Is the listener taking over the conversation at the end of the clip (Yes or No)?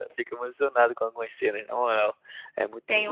Yes